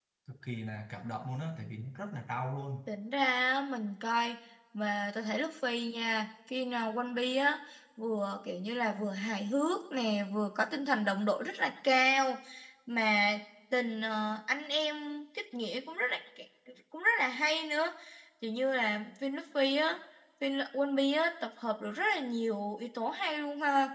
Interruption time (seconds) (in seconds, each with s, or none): none